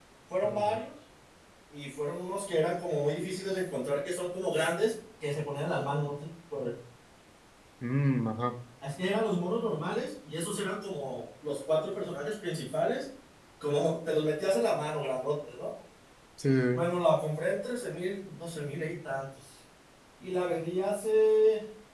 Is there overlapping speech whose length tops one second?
No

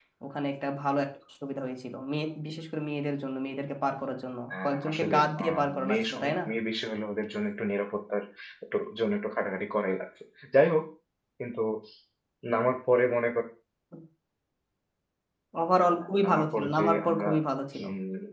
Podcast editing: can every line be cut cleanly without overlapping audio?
No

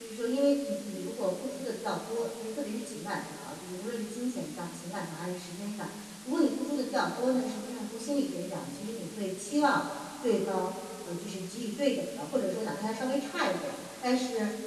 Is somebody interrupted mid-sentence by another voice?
No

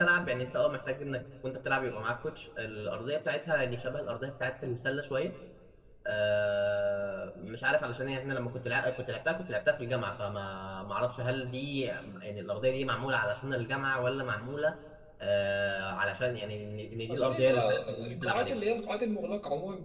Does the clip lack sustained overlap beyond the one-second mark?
No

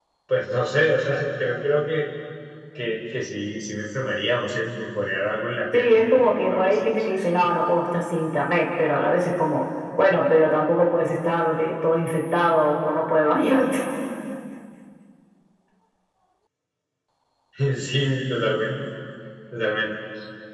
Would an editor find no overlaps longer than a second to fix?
No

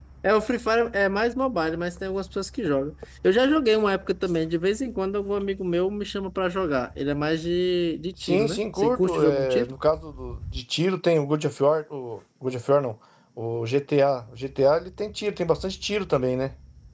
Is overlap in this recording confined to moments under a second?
No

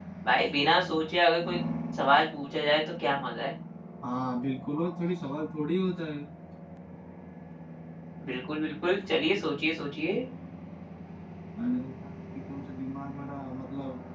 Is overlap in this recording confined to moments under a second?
Yes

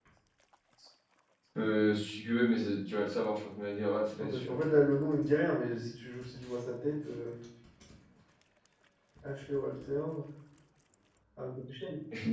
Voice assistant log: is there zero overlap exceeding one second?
Yes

